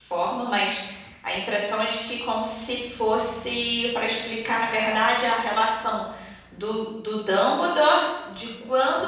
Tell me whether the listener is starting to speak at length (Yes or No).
No